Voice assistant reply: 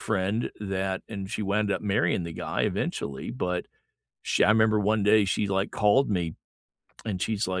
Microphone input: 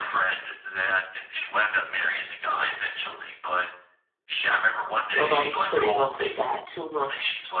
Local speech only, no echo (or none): Nobody's putting up with that too much.